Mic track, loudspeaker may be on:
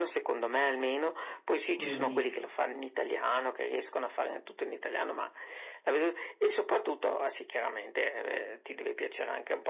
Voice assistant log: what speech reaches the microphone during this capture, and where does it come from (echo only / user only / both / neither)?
both